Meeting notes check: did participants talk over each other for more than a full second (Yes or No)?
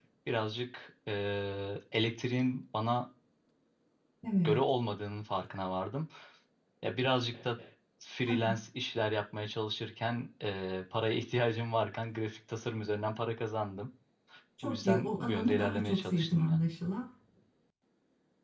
Yes